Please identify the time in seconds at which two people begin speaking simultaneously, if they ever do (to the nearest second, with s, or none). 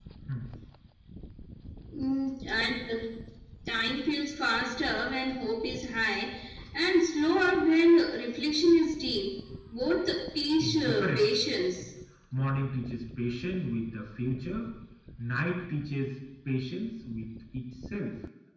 11 s